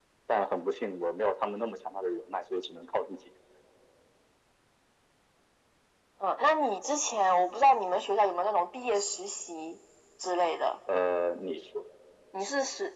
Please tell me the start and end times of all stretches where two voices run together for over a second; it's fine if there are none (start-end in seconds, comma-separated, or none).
none